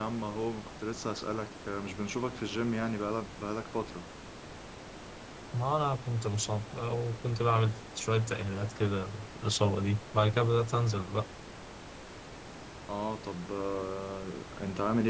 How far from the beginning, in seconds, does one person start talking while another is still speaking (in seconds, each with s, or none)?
none